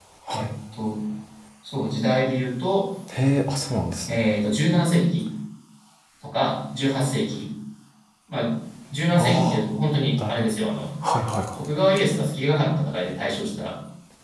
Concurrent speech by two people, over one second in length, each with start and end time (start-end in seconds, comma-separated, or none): none